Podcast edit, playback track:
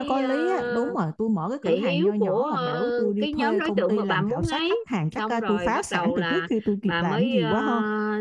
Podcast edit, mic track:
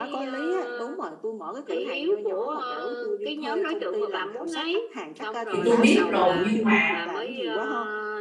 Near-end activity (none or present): present